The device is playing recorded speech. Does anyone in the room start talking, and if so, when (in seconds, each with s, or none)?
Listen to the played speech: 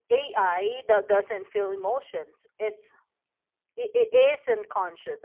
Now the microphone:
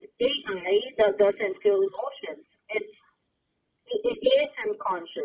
none